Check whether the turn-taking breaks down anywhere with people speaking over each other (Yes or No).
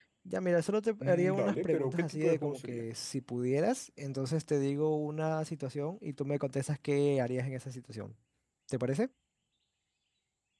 Yes